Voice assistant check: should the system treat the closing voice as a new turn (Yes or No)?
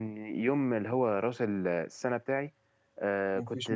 No